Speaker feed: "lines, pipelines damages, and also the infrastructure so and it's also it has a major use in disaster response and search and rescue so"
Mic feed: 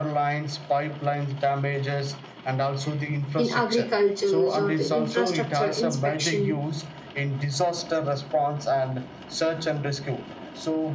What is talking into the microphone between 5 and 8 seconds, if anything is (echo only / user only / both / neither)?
both